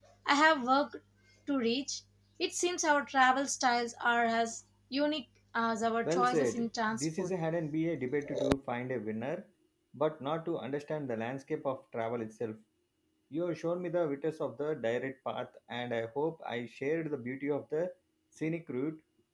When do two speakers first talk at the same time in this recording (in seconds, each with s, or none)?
6.0 s